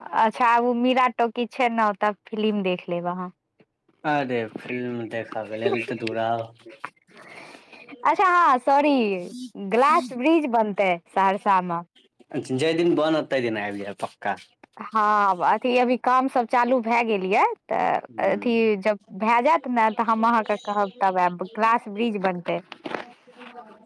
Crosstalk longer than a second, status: none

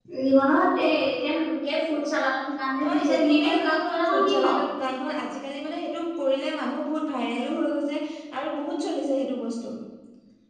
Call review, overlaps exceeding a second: present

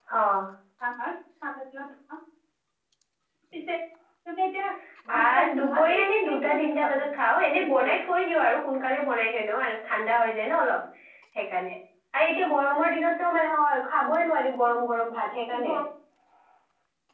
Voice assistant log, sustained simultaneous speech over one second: present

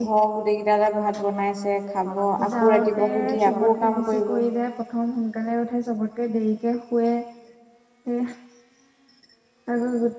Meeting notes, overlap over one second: present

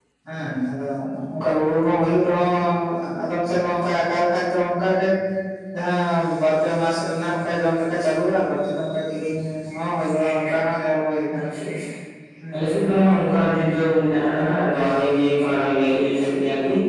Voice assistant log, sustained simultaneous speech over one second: none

